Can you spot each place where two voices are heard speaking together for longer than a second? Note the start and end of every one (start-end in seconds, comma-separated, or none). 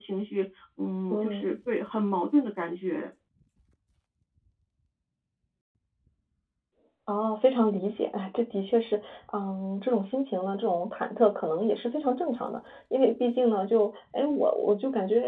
none